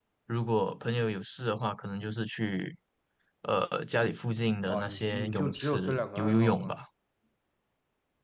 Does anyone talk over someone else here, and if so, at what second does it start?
5 s

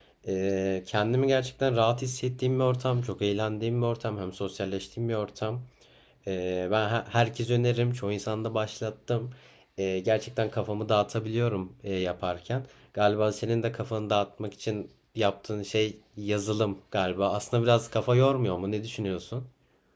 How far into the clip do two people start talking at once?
none

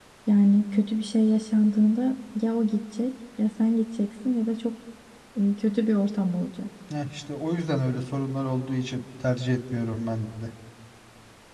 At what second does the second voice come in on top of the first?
none

